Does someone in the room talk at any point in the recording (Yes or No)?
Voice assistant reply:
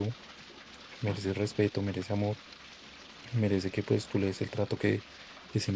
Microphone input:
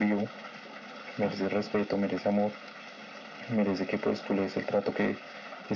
No